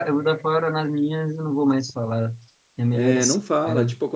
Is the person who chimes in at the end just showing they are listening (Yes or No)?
No